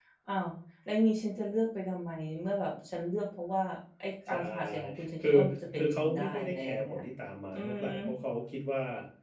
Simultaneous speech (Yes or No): Yes